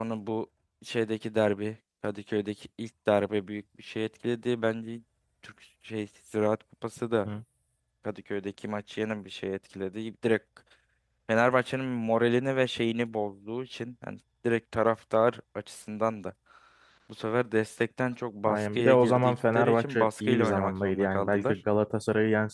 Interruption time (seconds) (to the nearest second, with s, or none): 18 s